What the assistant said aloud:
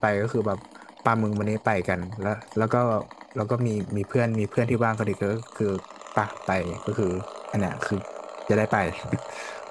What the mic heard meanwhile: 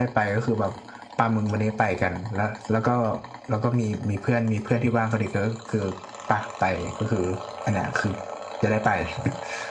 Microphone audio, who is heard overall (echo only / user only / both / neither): echo only